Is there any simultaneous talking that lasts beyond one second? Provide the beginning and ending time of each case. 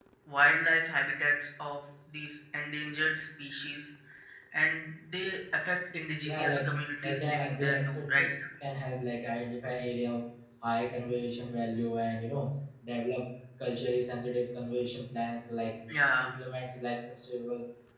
7.0-8.3

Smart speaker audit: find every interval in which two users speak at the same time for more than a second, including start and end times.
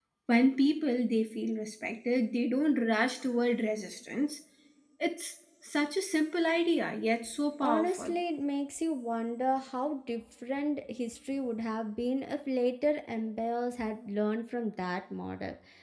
none

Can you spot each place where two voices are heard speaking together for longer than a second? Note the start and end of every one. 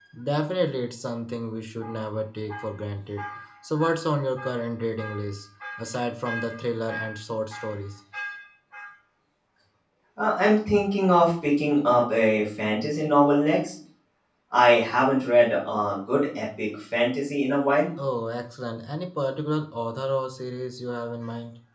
none

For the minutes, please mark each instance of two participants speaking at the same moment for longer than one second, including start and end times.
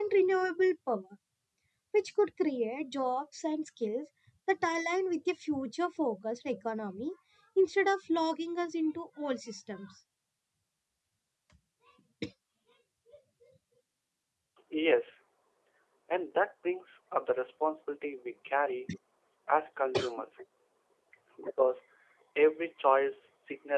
none

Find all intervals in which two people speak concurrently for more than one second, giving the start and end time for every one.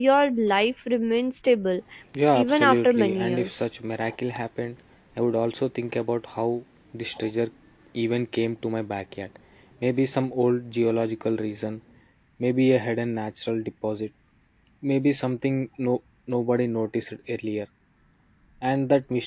2.3-3.6

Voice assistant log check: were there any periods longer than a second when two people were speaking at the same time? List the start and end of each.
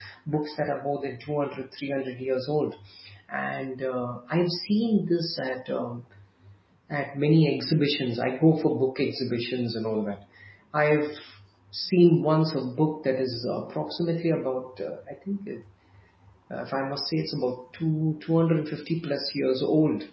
none

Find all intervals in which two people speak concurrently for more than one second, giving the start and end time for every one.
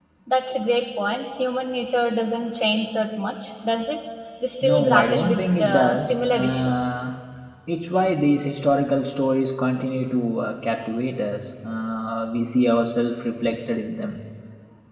4.6-6.9

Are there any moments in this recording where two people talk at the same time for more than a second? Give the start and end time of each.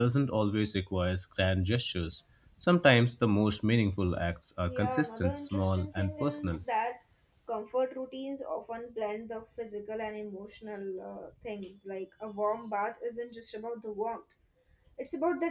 4.6-6.6

